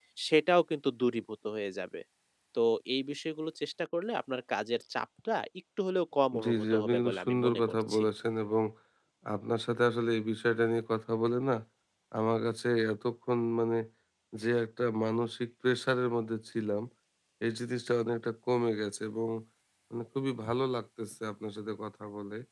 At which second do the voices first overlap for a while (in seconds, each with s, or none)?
6.3 s